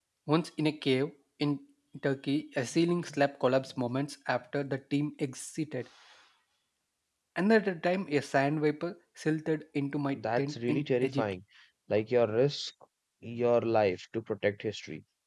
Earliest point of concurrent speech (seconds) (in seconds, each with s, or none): 10.1 s